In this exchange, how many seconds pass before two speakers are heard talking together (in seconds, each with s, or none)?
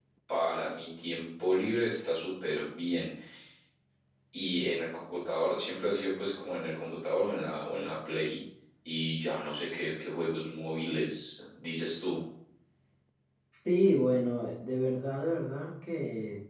none